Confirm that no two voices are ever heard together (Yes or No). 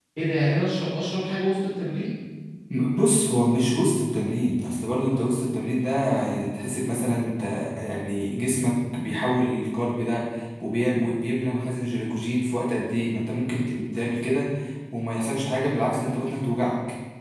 Yes